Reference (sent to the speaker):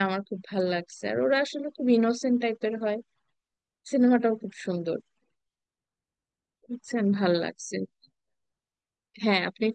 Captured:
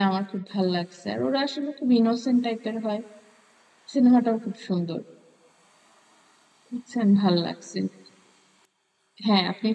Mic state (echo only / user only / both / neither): echo only